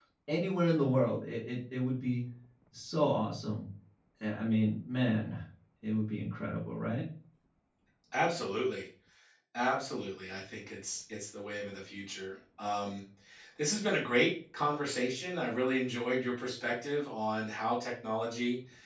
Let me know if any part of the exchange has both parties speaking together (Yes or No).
No